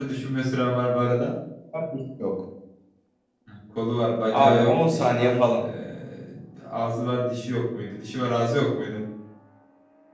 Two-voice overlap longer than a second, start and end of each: 4.3-5.6

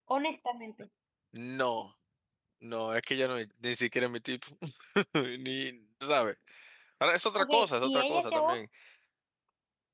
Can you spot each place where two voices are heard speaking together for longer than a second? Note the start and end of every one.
7.4-8.6

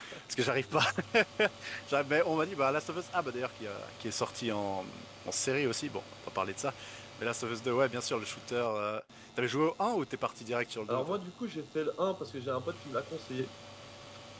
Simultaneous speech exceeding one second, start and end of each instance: none

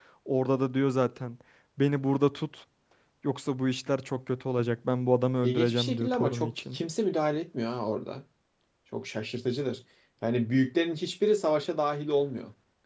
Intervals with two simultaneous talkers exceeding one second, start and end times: 5.4-6.8

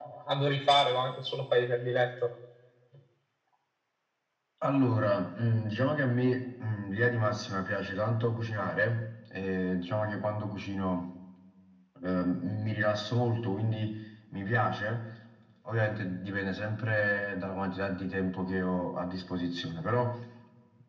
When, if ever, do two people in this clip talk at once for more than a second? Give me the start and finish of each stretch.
none

